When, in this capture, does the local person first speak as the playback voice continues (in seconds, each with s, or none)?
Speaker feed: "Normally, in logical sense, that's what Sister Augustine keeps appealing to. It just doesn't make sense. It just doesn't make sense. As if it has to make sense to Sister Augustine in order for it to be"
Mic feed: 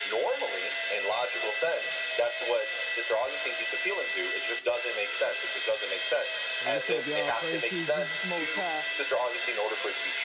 6.6 s